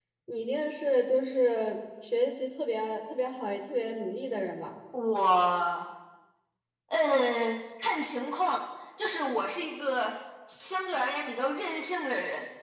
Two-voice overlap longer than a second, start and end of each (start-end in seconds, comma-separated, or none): none